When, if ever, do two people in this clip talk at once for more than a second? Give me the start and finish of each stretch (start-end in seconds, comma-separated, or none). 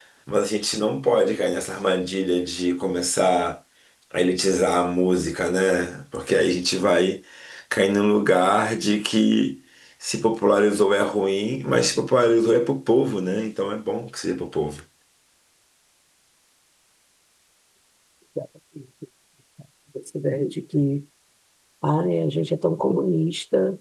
none